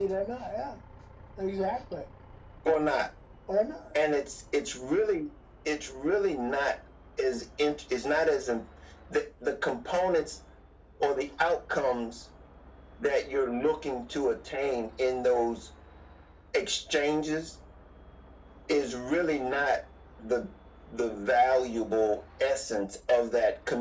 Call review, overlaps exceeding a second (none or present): none